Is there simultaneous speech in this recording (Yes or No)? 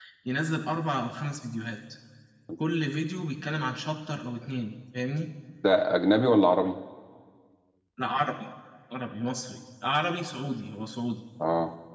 No